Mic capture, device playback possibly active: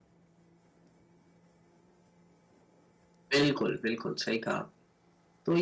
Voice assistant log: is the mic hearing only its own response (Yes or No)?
No